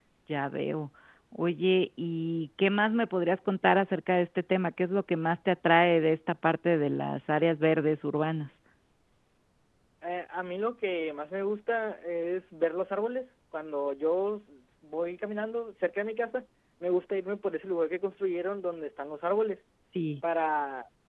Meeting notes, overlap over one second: none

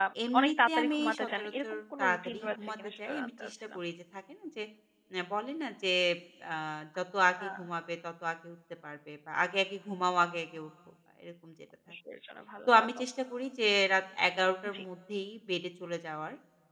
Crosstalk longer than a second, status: present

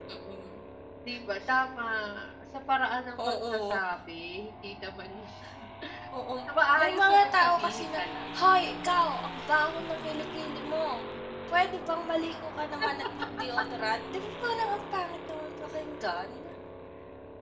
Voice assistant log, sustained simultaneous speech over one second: present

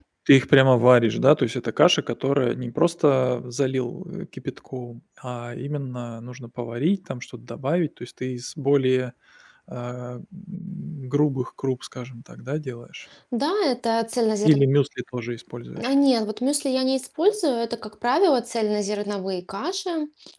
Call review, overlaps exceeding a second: none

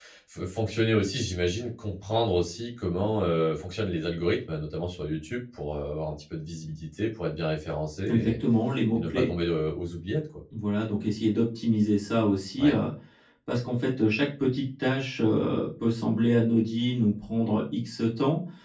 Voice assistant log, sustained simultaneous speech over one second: none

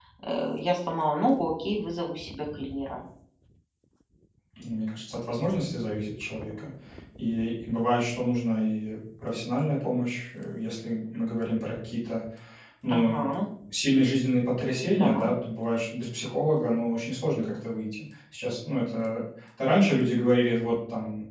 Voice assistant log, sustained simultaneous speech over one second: none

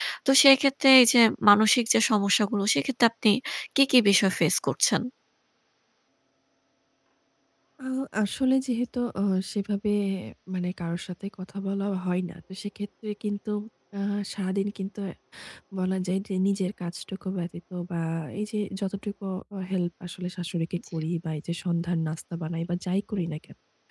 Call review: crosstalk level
none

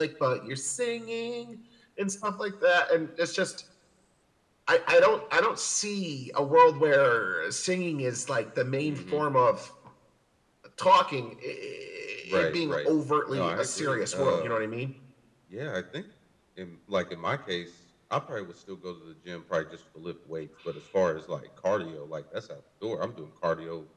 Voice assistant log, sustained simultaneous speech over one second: present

